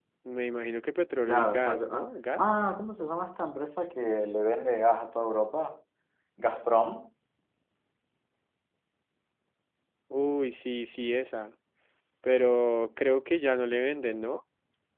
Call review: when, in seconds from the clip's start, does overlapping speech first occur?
1.3 s

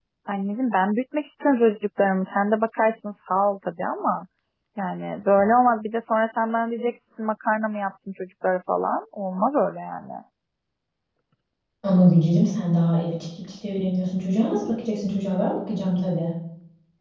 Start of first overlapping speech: none

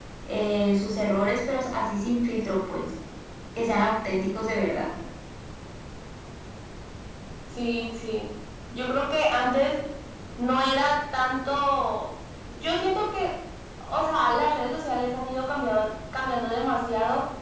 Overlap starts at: none

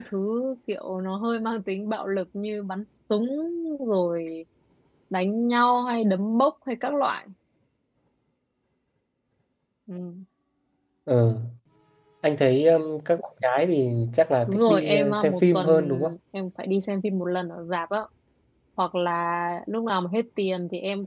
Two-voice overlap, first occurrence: 14.5 s

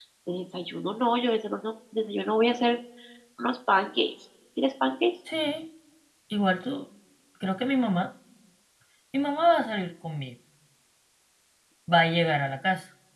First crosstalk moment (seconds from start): none

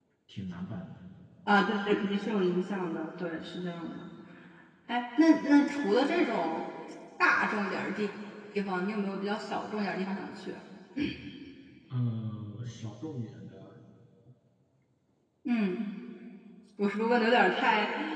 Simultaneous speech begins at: none

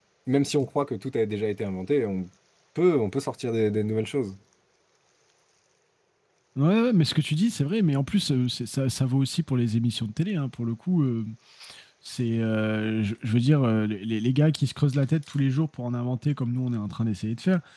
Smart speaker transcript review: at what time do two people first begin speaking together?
none

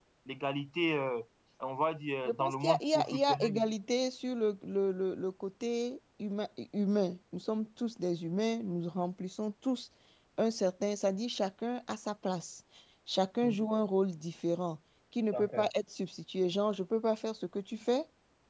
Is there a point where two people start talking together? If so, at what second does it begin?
2.2 s

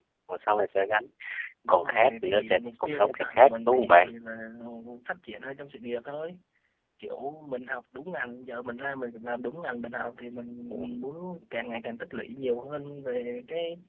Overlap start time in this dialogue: 1.7 s

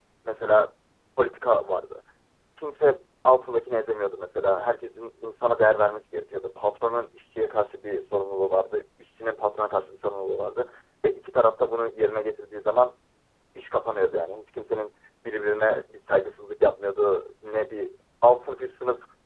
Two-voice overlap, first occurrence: none

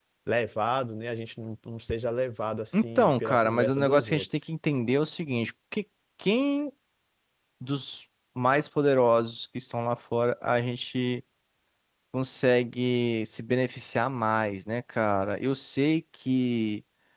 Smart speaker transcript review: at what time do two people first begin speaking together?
2.7 s

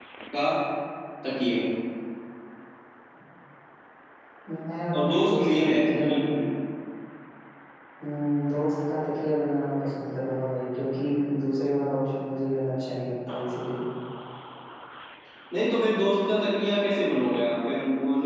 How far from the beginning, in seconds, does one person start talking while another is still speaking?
5.0 s

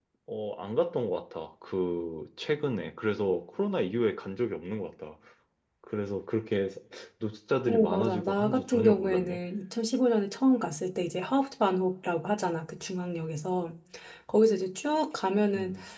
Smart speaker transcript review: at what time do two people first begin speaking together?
7.7 s

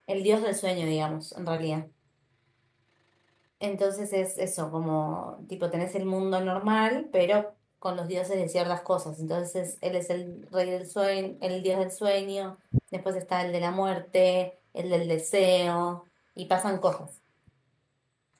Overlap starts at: none

